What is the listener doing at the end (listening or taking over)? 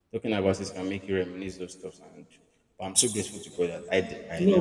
taking over